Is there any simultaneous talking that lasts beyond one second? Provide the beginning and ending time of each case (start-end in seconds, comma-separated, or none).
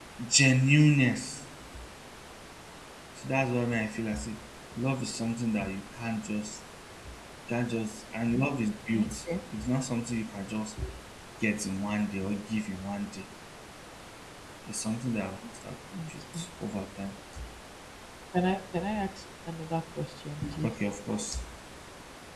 none